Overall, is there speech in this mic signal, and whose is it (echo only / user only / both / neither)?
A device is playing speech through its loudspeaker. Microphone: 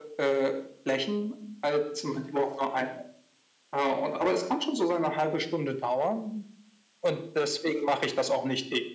echo only